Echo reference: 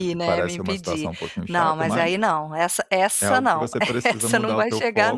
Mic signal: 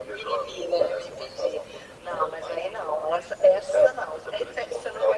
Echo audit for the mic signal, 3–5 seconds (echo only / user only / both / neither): echo only